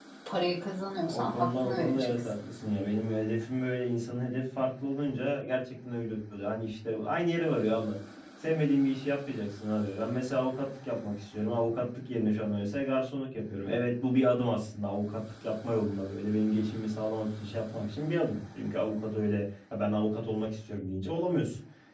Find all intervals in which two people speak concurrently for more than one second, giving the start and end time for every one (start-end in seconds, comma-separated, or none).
1.1-2.3